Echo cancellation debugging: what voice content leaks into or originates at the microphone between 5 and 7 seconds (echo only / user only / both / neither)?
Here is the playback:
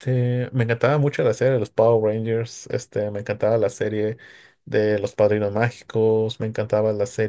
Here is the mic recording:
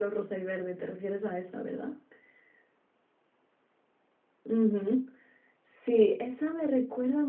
user only